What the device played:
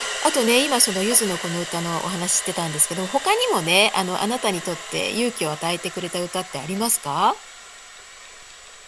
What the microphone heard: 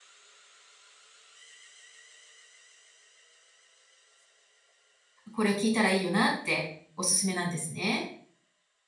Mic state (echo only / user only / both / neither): user only